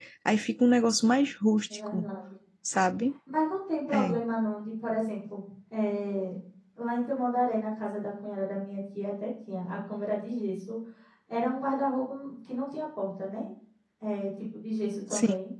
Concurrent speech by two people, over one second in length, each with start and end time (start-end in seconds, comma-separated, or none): none